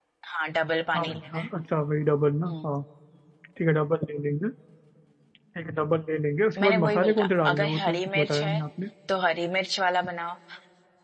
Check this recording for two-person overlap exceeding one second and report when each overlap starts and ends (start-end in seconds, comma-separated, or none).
6.6-8.5